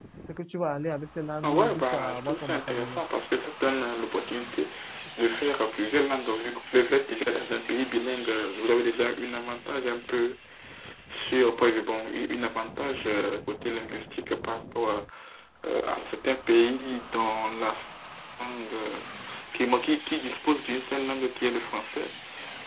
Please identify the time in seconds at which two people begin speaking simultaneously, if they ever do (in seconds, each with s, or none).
1.4 s